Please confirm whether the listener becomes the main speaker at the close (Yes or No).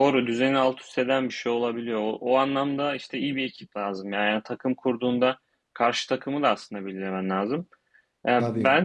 No